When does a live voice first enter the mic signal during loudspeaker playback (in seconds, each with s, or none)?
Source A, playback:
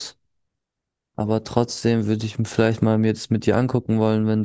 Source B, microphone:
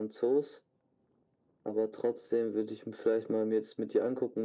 none